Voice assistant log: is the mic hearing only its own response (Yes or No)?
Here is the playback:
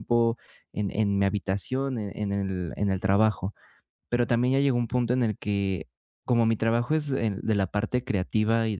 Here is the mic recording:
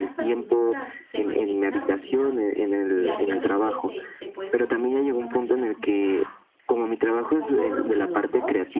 No